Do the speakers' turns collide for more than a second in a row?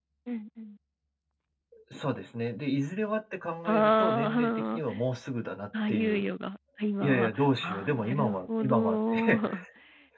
Yes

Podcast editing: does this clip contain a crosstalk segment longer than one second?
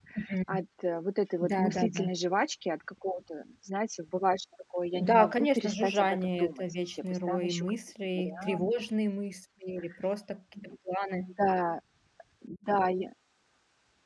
Yes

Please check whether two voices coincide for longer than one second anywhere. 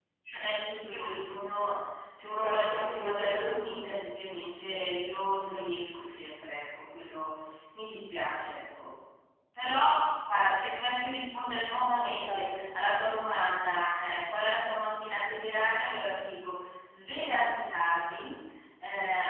Yes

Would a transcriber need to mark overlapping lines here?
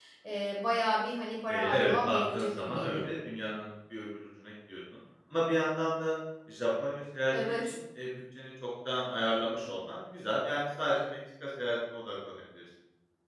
Yes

